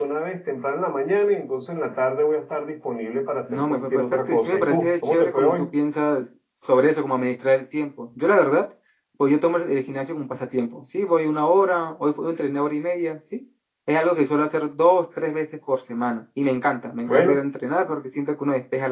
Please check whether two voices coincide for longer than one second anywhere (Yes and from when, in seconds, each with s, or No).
Yes, from 3.5 s